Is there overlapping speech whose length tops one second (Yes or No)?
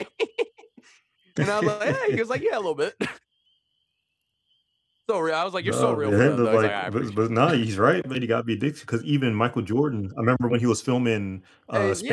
Yes